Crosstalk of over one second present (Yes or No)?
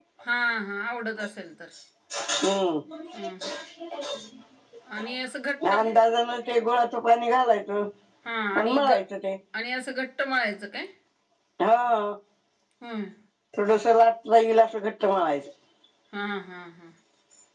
No